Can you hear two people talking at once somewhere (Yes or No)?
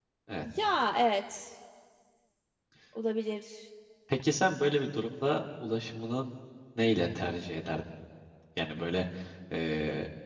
No